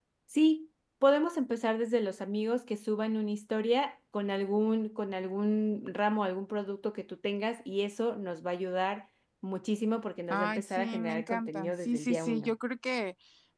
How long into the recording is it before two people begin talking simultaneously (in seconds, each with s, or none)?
10.3 s